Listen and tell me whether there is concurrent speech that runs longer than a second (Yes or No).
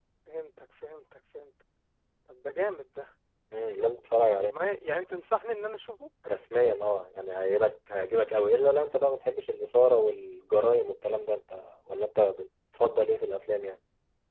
No